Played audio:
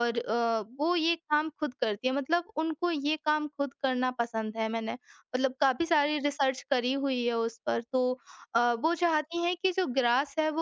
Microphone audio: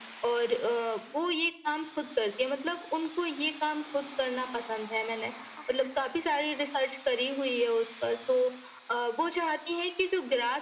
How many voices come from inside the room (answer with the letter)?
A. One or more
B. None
B